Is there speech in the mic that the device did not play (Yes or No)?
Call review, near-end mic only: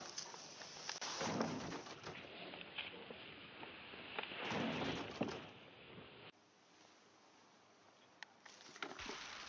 No